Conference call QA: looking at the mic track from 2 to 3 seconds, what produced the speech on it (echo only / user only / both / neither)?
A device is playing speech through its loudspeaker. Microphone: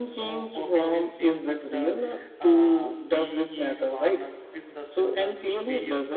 both